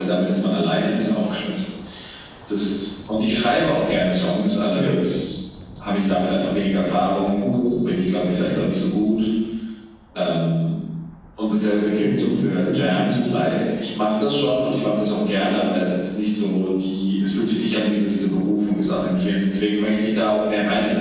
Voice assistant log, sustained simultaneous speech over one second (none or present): present